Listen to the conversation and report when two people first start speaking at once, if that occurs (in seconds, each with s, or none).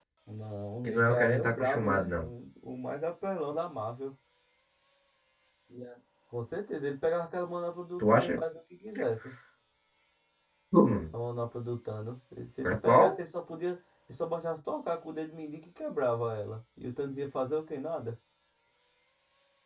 0.8 s